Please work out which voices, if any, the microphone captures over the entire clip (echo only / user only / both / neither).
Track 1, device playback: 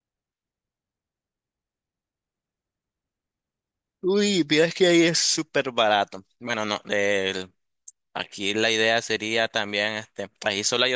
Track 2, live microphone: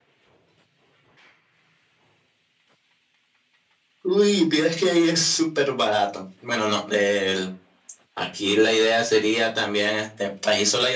echo only